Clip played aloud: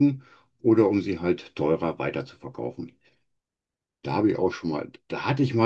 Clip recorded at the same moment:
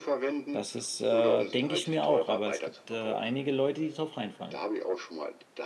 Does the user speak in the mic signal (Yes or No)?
Yes